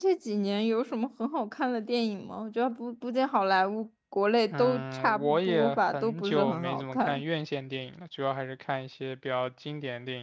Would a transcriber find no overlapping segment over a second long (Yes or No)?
No